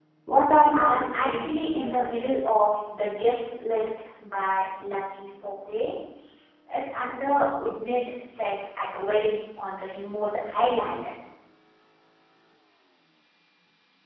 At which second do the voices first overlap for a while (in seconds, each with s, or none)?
0.7 s